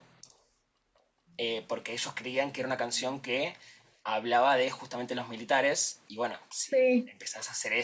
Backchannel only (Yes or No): Yes